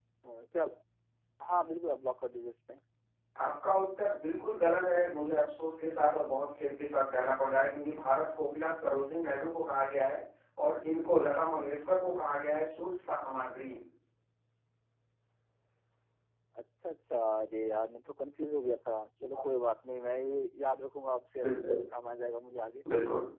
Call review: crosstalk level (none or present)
none